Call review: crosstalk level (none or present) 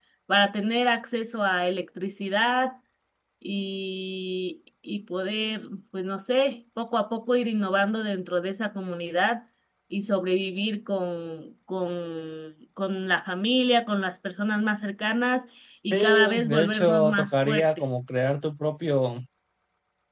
present